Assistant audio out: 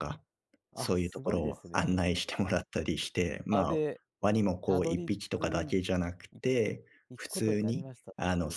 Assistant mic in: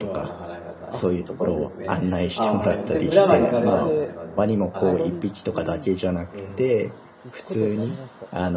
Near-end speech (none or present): present